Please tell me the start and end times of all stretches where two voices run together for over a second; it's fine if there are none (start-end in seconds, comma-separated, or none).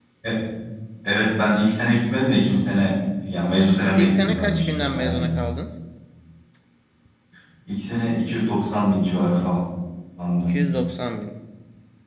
4.0-5.2